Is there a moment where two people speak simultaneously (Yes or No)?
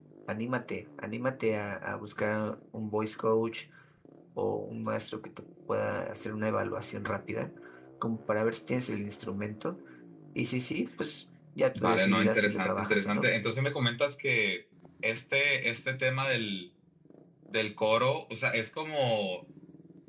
Yes